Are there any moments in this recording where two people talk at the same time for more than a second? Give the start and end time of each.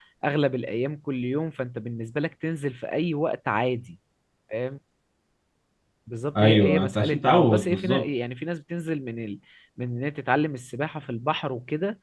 6.4-8.0

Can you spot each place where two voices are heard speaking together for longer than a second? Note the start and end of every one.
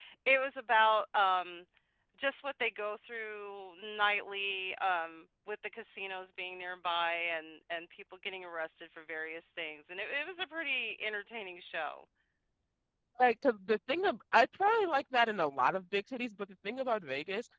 none

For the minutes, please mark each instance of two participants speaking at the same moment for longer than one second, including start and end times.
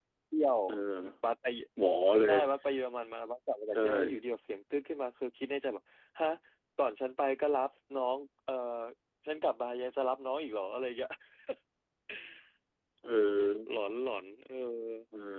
none

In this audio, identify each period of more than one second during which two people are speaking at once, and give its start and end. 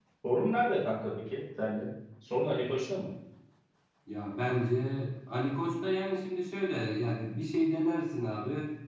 none

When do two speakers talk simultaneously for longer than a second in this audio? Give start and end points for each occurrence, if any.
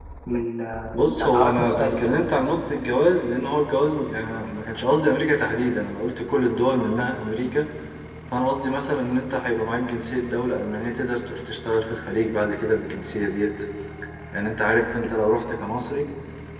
0.9-2.3

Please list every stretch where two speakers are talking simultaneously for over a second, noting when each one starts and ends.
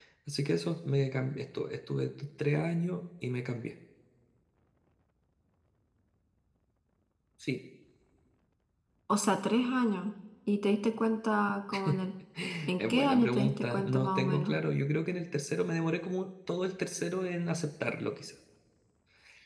12.8-14.6

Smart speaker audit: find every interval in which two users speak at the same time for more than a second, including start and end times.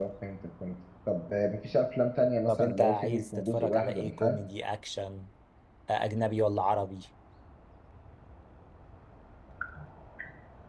2.5-4.4

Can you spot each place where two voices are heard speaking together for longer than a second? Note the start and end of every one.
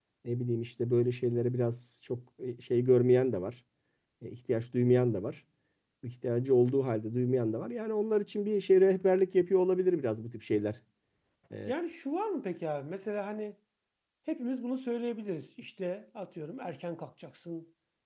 none

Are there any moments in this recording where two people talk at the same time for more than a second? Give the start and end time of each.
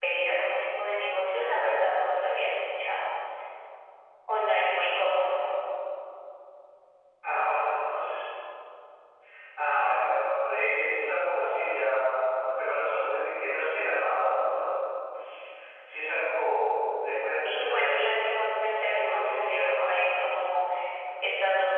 17.4-20.1

